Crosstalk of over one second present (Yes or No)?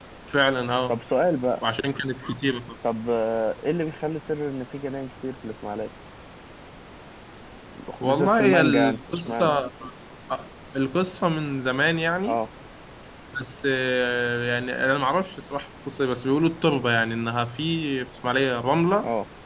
Yes